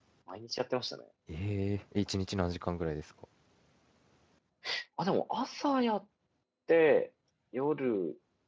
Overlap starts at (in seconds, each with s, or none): none